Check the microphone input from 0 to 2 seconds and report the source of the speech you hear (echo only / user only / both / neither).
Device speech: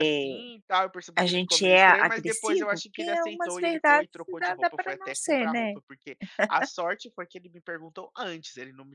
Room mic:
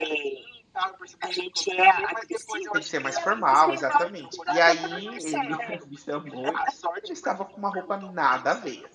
echo only